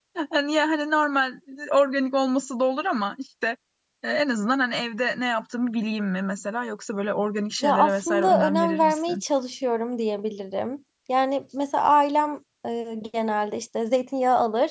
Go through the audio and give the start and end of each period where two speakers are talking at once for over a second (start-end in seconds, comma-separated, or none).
7.6-9.2